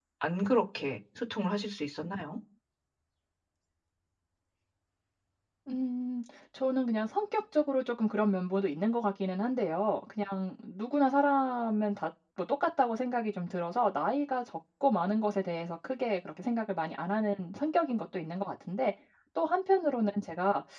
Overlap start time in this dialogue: none

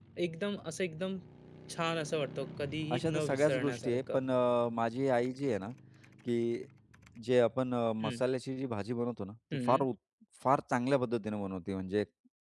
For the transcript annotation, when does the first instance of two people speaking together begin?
2.9 s

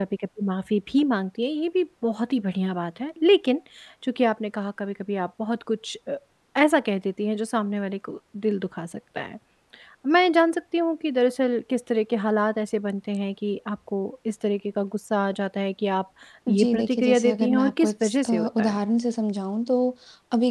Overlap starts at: 16.5 s

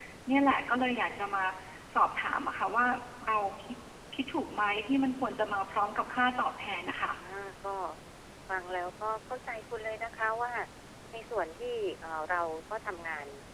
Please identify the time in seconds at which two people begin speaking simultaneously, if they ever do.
none

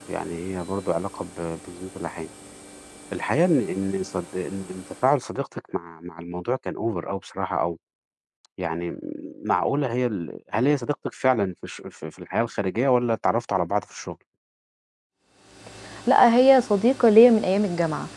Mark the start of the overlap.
none

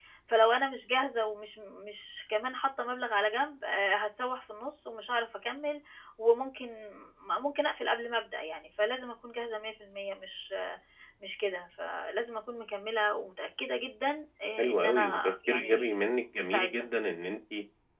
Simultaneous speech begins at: 14.6 s

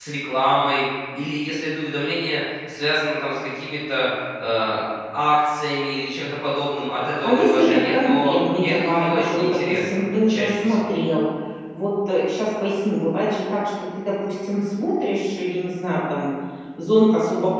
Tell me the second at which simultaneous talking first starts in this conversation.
7.2 s

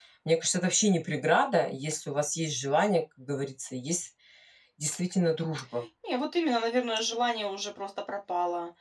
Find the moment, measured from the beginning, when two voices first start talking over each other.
none

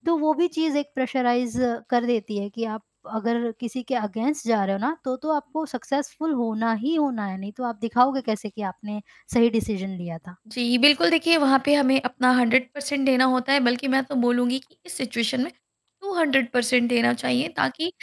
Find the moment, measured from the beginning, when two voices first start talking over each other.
none

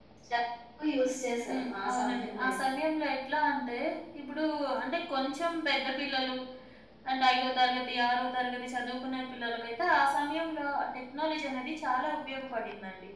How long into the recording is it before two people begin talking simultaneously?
1.5 s

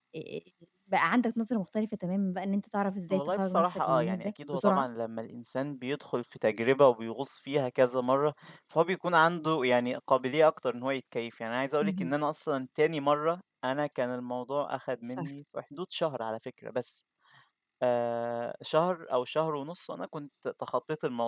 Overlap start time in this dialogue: 3.1 s

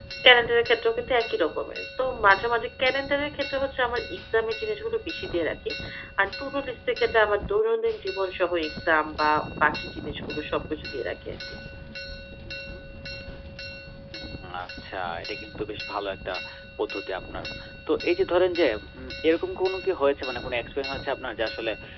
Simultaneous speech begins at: none

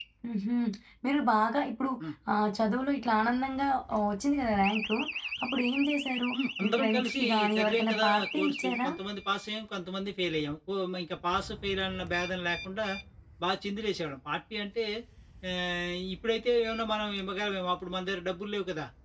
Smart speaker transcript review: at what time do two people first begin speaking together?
6.6 s

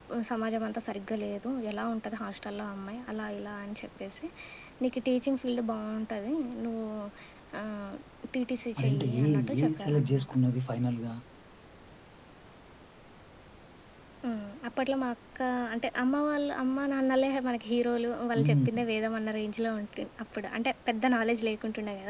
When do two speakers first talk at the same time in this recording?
8.8 s

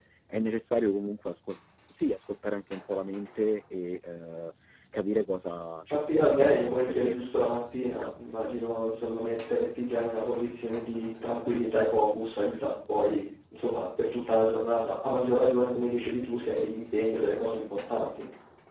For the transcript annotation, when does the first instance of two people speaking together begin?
5.9 s

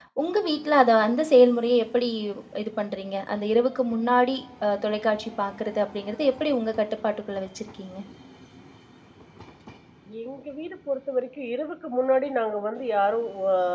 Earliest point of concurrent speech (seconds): none

